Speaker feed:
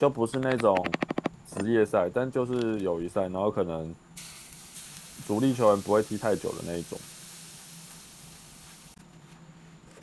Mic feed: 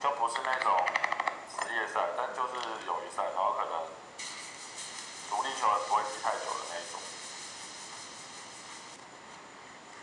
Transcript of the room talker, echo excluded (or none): none